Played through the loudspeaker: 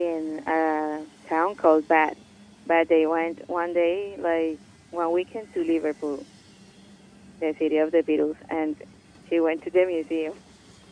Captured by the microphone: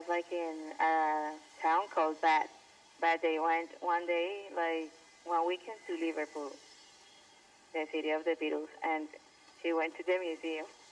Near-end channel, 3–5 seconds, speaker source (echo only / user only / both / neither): echo only